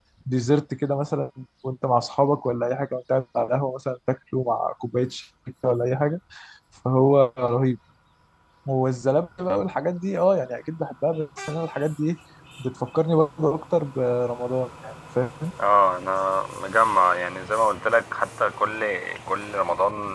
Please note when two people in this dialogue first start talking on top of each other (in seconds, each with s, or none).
none